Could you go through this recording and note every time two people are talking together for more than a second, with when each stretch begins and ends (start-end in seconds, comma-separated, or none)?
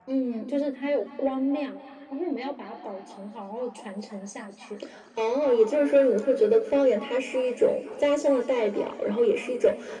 none